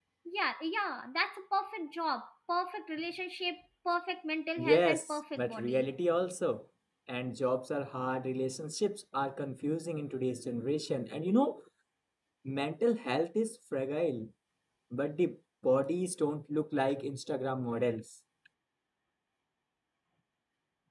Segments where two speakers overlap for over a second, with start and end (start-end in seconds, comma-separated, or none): 4.6-5.9